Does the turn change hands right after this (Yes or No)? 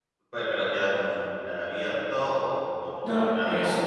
Yes